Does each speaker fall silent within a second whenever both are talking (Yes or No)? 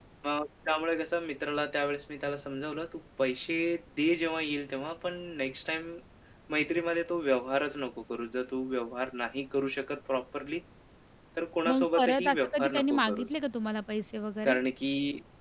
No